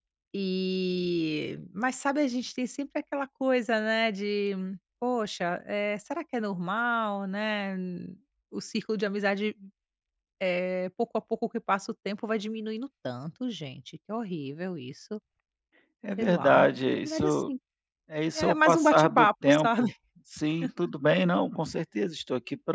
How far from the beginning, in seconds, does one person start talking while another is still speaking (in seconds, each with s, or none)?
16.2 s